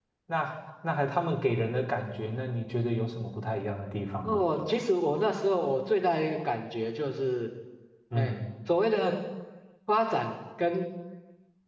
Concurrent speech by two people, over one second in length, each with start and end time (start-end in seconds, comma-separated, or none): none